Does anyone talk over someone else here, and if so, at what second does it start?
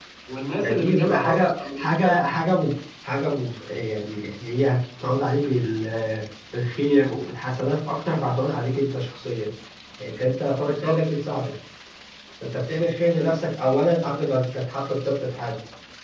0.6 s

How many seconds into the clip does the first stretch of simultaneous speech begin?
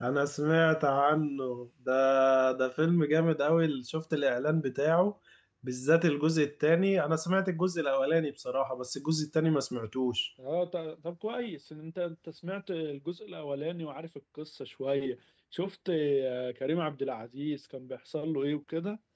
none

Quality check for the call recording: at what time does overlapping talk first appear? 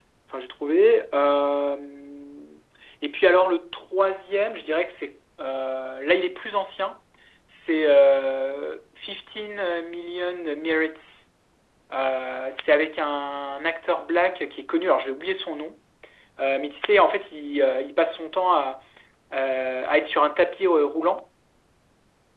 none

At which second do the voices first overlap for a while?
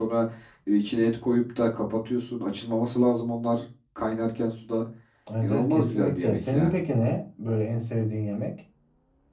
5.4 s

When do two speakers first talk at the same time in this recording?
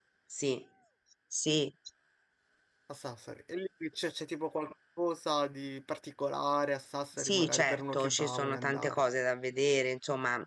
7.2 s

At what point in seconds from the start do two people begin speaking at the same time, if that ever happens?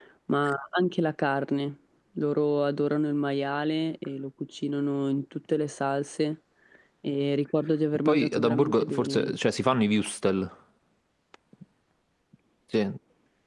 8.1 s

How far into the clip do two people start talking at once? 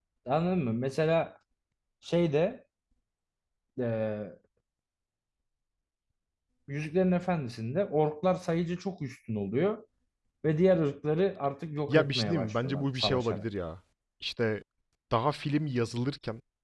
11.9 s

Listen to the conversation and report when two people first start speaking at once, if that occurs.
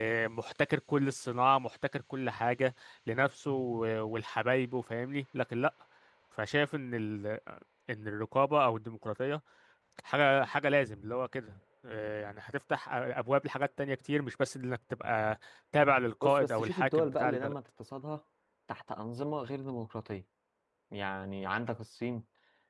16.2 s

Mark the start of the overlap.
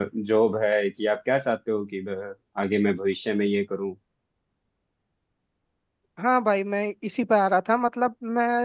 none

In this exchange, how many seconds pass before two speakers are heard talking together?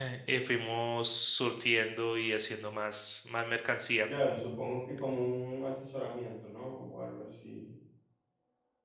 none

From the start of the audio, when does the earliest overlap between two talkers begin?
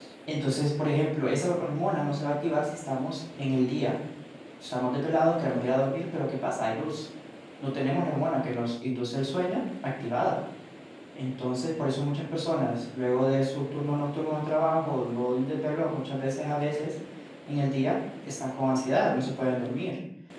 none

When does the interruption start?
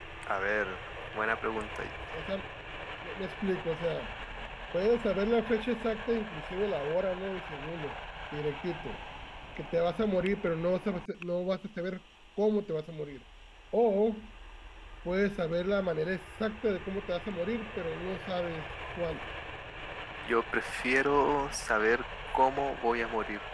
none

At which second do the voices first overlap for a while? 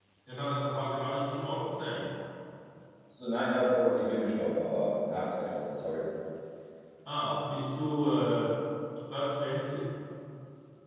none

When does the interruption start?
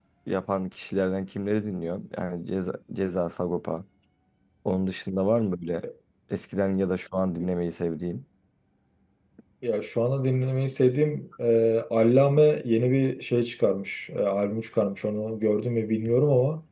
none

